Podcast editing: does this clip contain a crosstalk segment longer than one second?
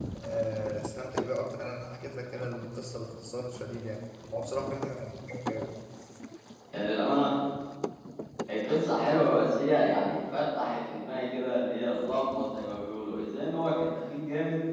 No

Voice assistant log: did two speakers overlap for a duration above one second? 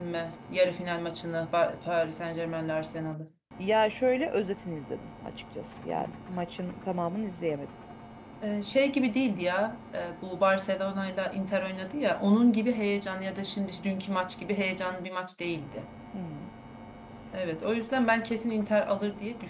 No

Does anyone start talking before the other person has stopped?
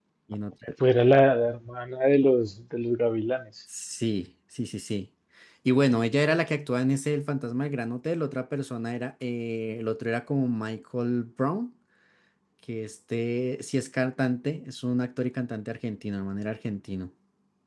No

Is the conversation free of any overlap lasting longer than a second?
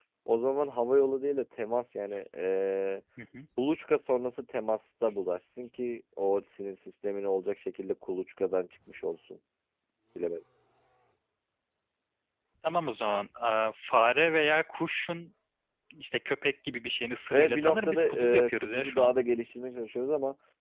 No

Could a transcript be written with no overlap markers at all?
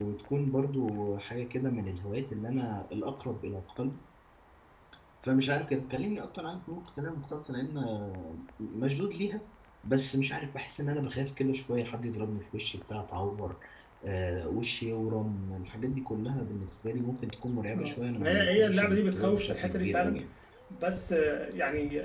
No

